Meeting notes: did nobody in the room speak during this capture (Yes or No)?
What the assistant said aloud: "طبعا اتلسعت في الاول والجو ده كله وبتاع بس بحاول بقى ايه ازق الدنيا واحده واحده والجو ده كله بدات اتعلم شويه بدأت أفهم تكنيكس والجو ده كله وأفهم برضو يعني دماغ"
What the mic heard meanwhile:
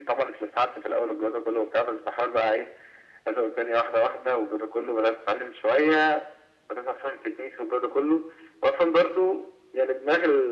Yes